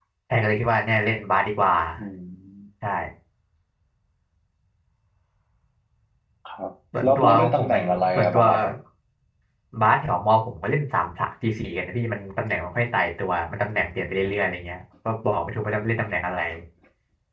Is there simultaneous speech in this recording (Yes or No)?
Yes